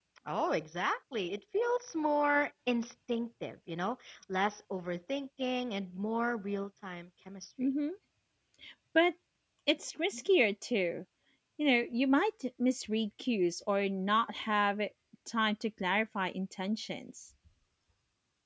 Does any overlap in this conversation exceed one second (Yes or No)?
No